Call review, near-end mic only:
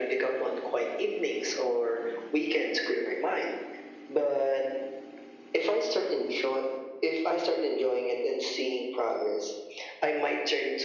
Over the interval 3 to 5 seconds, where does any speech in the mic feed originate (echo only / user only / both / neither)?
echo only